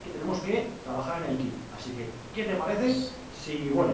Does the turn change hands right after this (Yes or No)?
No